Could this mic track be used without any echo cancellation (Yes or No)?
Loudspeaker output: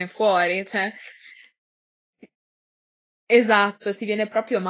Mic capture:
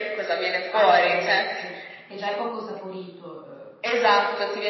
No